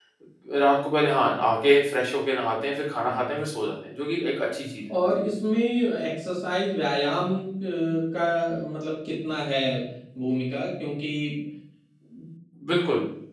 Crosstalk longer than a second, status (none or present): none